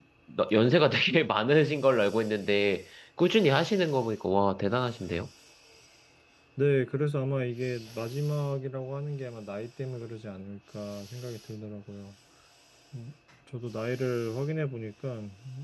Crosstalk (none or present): none